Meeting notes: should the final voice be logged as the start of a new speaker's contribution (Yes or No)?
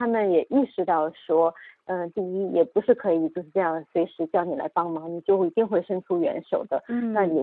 No